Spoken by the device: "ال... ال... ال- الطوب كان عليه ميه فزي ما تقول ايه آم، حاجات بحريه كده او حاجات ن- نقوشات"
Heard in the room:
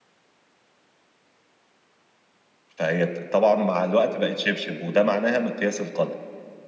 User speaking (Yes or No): Yes